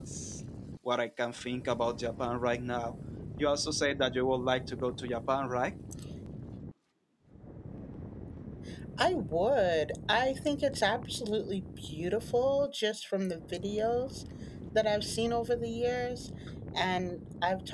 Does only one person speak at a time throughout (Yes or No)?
Yes